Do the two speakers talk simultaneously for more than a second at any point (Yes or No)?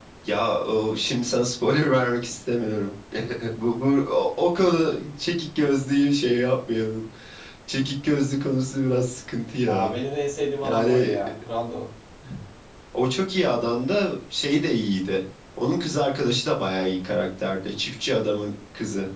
No